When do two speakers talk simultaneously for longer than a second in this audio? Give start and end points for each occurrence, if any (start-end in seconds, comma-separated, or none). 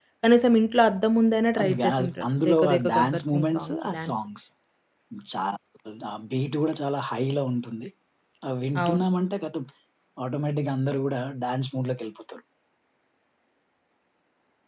1.6-4.1